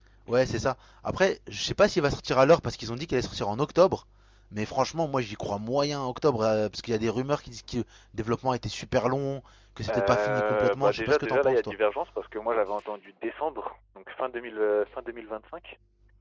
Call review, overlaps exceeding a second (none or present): present